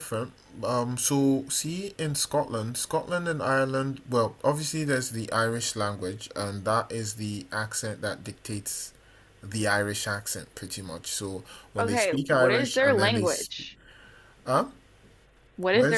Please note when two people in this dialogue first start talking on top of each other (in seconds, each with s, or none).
11.8 s